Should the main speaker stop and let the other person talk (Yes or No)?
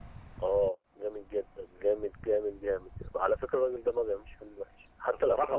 No